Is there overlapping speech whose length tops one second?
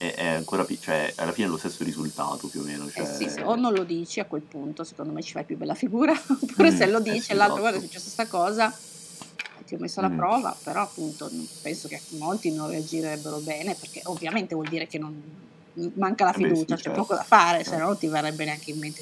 Yes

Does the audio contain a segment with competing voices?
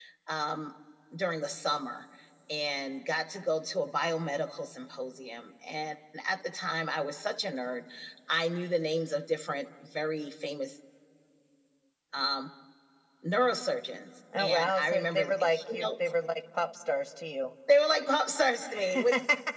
Yes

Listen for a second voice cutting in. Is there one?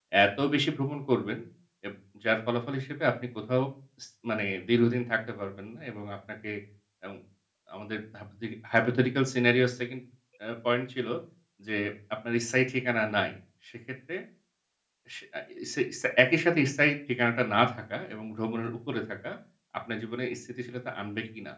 No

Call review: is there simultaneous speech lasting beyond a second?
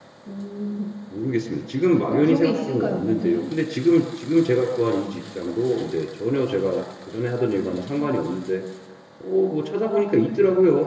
Yes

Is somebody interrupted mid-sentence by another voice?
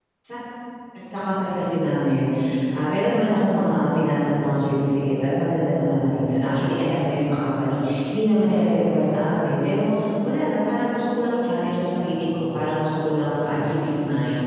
No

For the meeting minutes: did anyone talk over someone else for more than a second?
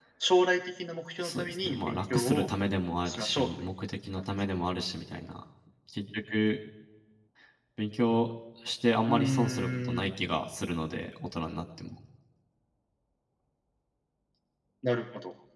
Yes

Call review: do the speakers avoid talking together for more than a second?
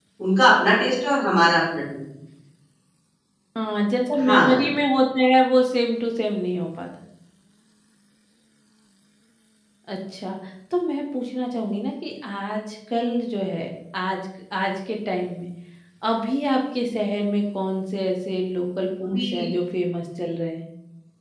Yes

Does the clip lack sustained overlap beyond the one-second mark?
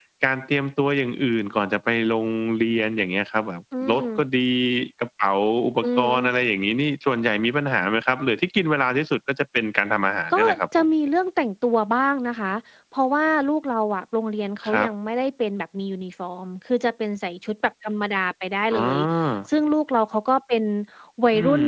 Yes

